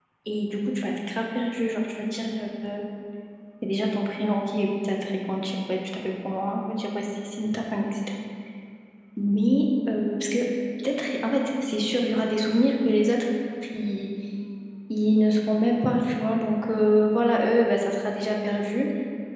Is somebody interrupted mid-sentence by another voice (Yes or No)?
No